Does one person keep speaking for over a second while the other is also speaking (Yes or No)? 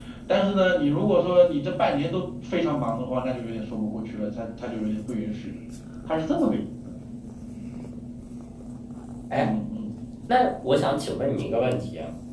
No